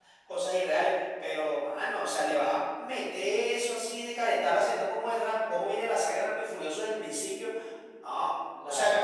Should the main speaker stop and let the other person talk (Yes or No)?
No